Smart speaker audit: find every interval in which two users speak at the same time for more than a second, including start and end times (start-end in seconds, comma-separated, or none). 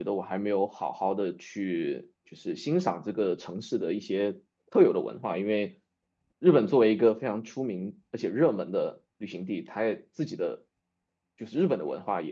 none